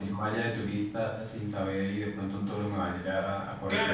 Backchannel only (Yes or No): No